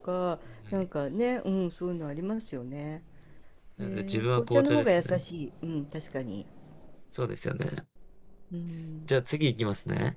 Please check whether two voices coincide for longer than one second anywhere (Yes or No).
Yes